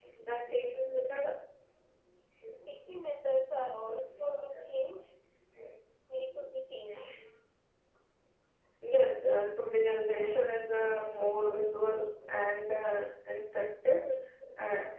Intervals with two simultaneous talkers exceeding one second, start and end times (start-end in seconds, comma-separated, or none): none